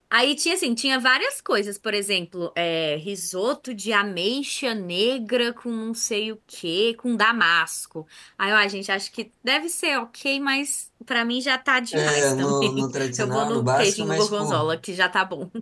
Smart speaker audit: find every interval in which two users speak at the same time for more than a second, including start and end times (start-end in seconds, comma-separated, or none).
11.9-14.6